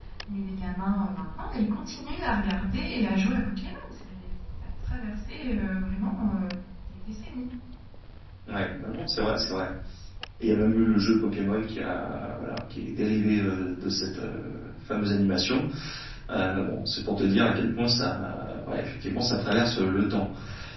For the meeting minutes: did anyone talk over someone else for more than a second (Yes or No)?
No